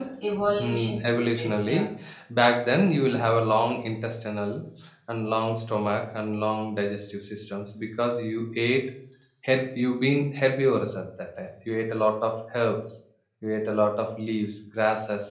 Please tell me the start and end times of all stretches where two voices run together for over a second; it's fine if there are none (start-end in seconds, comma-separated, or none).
0.6-1.9